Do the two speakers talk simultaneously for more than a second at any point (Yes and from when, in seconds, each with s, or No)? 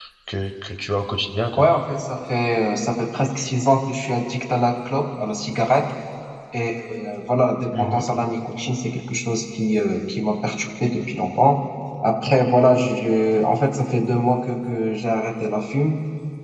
No